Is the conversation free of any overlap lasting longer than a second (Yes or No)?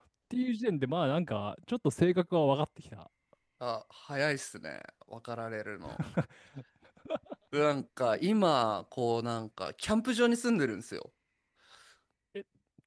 Yes